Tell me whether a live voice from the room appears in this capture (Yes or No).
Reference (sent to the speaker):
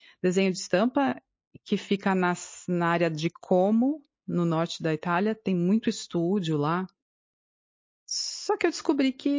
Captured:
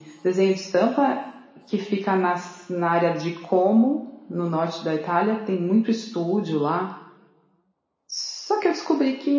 No